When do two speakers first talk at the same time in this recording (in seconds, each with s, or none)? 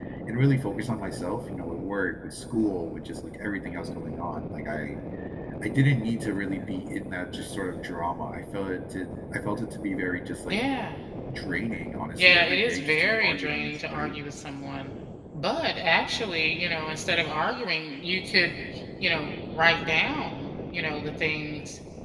12.2 s